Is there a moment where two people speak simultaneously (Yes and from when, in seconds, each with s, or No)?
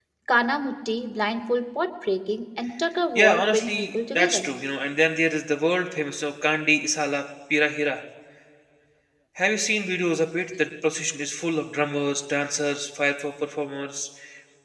Yes, from 3.2 s